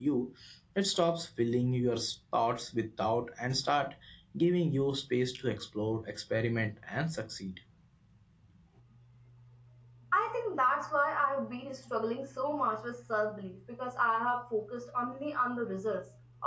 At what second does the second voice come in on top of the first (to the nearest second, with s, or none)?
none